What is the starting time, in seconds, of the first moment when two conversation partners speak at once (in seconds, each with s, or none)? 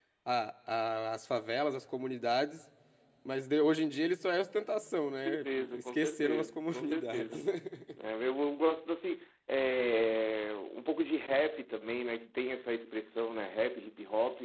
5.2 s